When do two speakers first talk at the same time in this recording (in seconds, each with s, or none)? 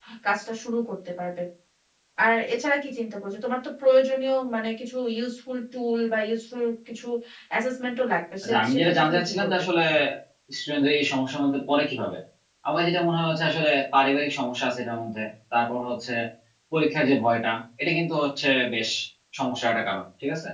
8.4 s